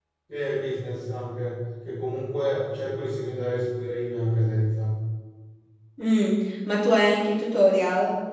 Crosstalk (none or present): none